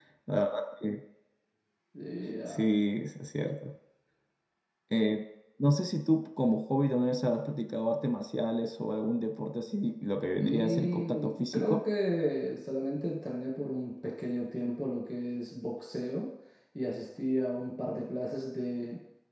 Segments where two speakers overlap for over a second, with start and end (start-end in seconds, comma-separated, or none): 10.4-11.8